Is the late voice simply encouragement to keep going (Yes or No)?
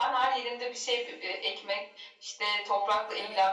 Yes